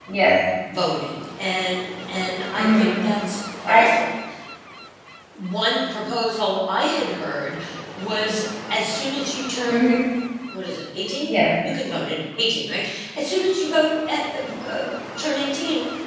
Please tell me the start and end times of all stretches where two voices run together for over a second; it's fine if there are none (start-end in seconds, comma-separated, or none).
none